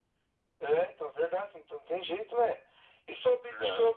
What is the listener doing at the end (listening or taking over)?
listening